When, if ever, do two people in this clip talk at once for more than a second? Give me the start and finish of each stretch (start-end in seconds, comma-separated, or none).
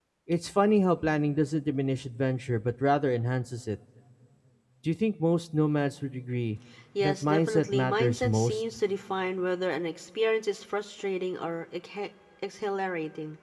7.0-8.6